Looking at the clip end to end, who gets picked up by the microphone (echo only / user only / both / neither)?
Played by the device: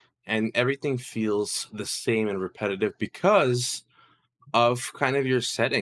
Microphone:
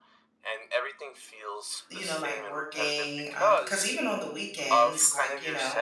both